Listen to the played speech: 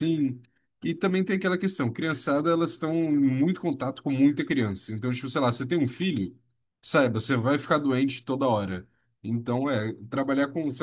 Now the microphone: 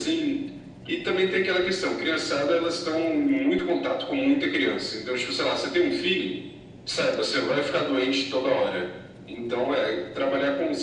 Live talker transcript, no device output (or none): none